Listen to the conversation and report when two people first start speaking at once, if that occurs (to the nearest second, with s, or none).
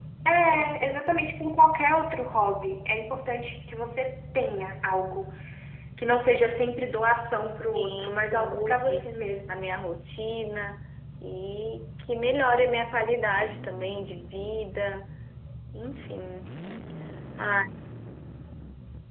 8 s